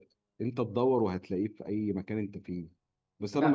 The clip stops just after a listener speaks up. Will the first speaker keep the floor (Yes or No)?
No